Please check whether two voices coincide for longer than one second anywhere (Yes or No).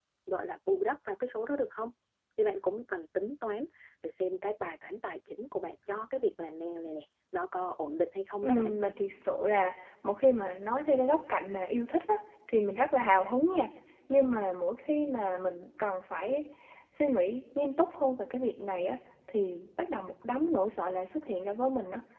No